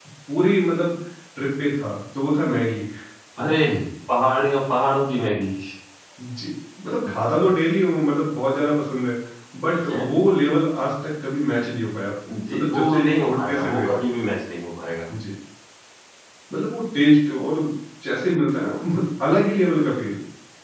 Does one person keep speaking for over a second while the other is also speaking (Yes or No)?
Yes